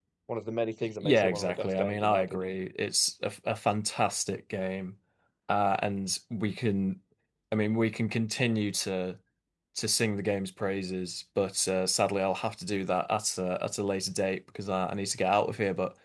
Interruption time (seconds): 1.0 s

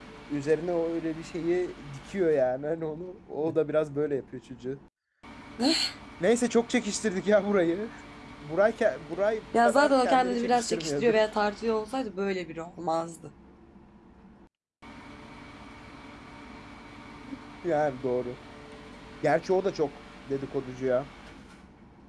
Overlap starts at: 9.5 s

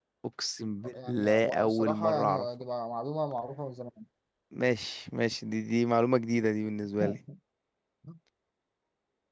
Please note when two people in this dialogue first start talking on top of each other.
0.9 s

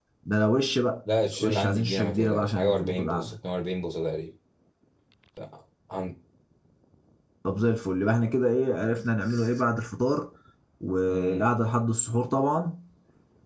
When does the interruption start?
1.4 s

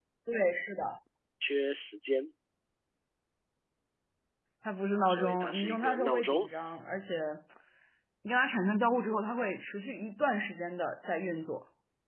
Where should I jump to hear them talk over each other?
5.1 s

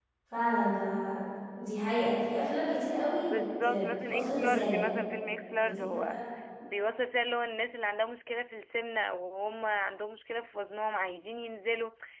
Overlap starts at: 3.2 s

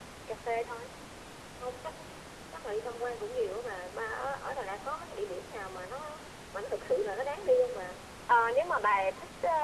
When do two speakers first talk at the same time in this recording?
none

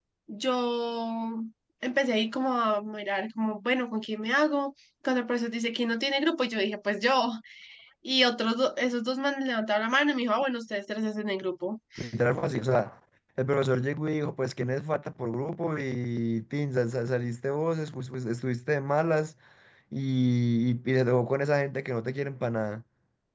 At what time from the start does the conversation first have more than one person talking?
none

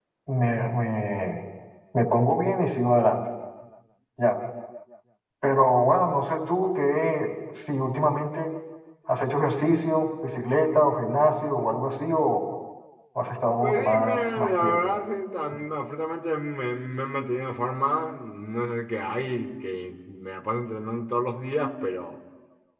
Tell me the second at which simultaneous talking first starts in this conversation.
13.6 s

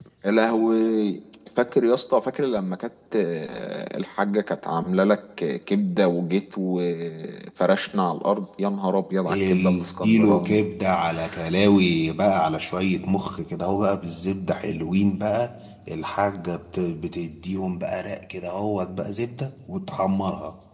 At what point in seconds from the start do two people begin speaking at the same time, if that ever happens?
9.3 s

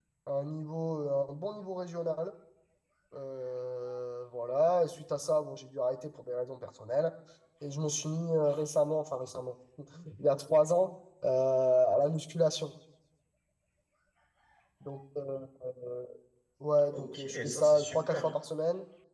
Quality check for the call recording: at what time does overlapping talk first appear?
16.9 s

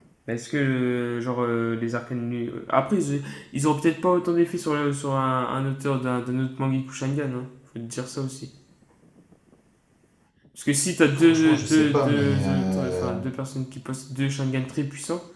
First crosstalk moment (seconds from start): 11.2 s

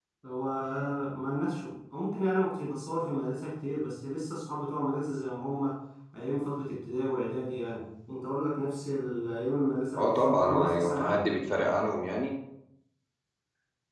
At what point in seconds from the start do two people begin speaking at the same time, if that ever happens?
10.0 s

